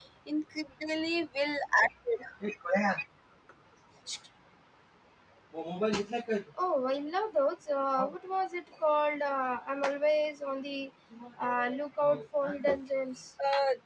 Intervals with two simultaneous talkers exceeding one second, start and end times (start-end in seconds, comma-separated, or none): none